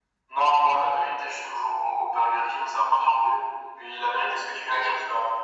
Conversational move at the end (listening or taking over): listening